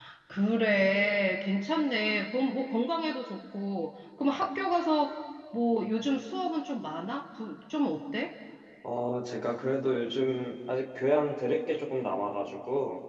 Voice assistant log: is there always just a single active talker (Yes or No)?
Yes